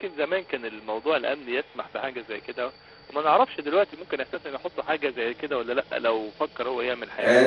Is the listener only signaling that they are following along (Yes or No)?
No